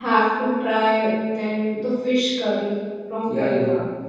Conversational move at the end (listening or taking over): taking over